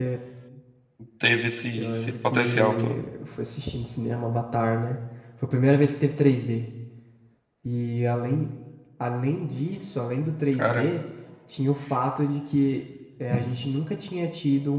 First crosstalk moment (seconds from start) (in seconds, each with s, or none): 1.8 s